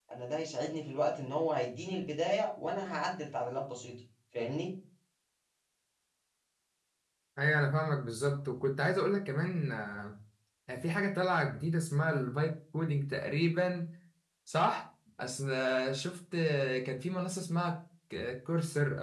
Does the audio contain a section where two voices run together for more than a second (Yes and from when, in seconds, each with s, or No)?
No